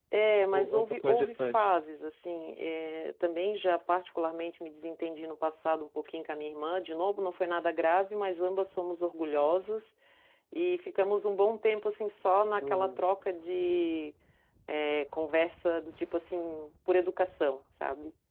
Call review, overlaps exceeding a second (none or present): present